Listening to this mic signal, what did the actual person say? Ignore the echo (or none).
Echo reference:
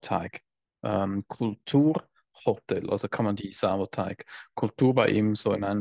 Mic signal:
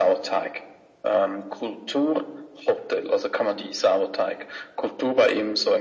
none